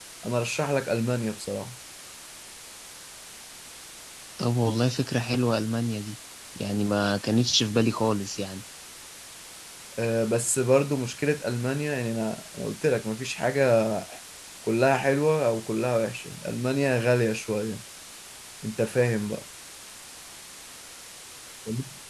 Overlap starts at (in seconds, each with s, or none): none